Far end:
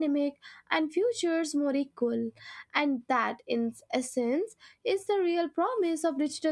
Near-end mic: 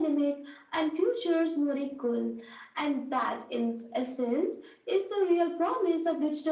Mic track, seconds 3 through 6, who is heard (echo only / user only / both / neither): echo only